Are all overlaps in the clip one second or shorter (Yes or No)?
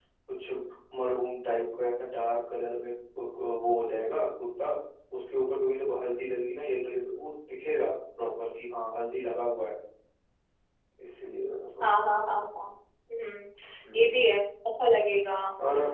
Yes